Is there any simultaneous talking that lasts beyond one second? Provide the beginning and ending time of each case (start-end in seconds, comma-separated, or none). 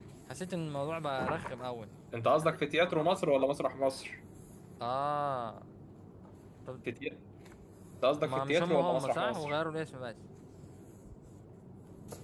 8.2-9.5